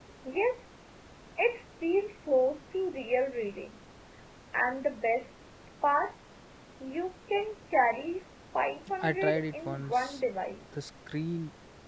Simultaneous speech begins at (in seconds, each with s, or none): 9.0 s